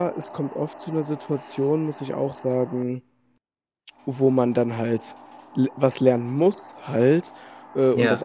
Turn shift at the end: No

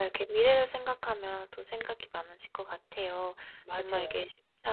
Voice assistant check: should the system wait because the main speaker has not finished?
Yes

